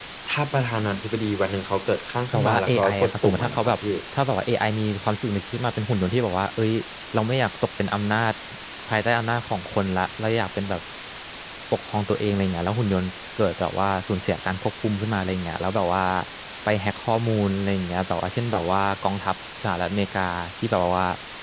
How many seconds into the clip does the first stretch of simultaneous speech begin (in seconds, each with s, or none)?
2.3 s